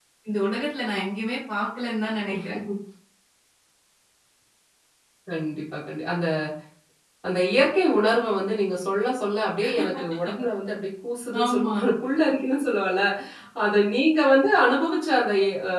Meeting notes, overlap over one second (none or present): none